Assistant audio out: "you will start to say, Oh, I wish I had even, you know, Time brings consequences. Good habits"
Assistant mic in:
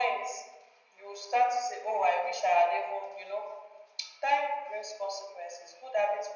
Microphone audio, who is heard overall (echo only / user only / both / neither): echo only